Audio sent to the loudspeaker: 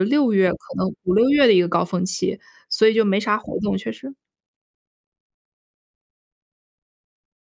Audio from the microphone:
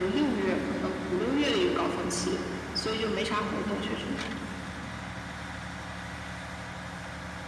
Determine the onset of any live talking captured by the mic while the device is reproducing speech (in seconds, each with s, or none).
none